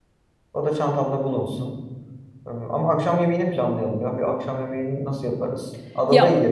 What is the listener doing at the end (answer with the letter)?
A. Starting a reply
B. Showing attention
A